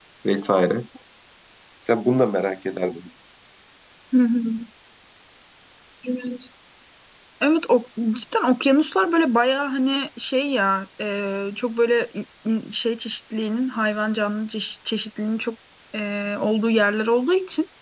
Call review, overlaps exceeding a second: none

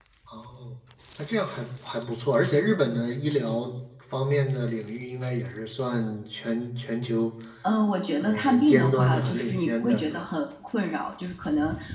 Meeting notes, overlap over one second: present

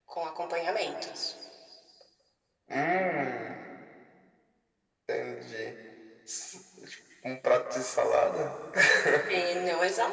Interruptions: none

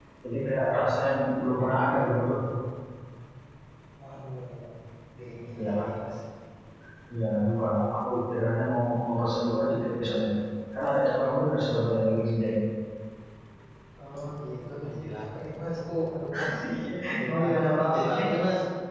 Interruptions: present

